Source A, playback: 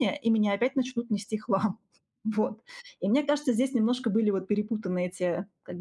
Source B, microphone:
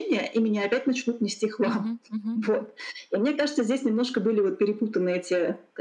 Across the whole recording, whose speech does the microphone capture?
both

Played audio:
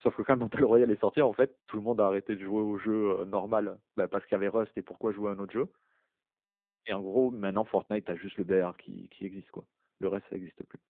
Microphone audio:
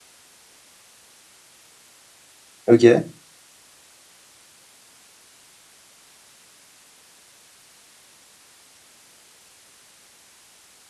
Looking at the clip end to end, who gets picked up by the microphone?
user only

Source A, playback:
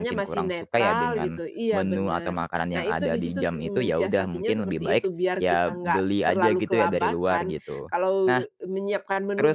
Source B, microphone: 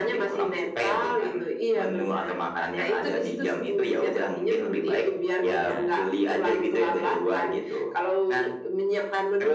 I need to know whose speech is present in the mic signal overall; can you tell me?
both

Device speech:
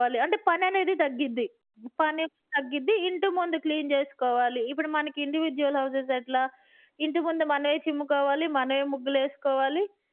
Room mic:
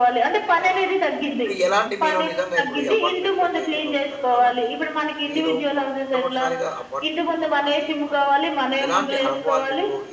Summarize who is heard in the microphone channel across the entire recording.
both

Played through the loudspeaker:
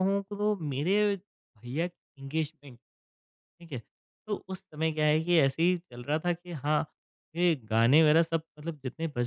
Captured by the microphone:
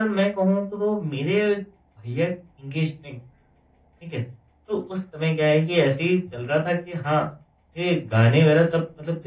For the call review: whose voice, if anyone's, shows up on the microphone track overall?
echo only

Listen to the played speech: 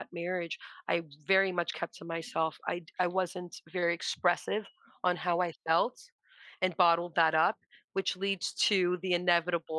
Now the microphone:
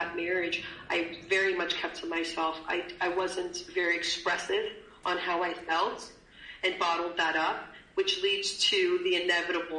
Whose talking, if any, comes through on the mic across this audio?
echo only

